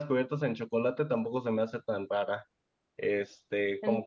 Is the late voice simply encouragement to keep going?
Yes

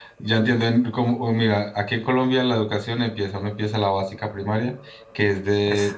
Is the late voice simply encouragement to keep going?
Yes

